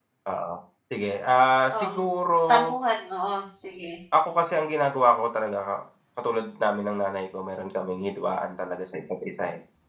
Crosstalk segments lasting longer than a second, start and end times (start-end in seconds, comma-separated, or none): none